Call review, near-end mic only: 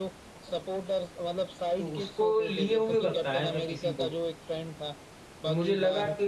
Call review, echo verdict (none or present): present